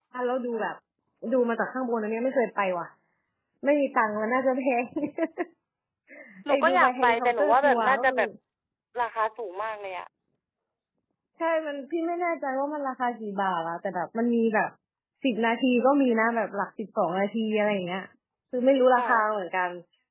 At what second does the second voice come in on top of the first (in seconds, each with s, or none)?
6.5 s